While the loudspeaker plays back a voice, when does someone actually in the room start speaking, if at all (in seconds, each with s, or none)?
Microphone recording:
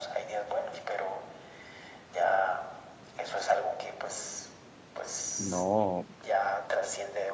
5.4 s